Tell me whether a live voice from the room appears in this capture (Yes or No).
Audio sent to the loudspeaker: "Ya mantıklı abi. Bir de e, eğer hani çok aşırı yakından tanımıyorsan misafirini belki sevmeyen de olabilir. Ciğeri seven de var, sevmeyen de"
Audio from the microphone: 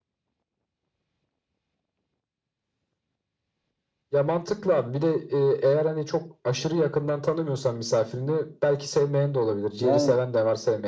Yes